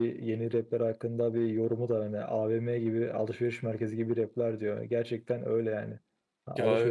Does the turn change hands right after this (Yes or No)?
No